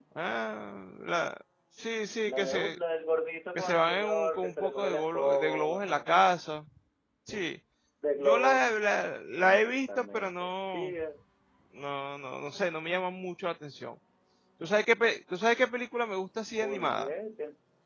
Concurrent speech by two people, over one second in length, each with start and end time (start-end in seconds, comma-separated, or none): 3.5-6.0, 9.4-10.9